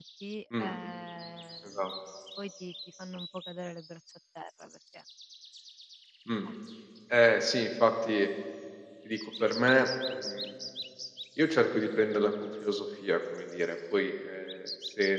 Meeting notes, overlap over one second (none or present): none